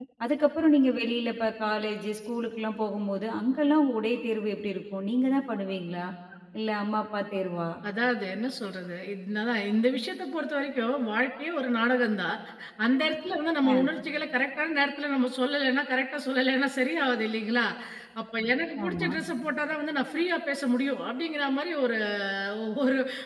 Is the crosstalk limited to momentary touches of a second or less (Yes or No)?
Yes